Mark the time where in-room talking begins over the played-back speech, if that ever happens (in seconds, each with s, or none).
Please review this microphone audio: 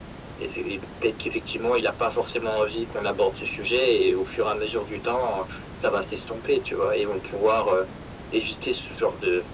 none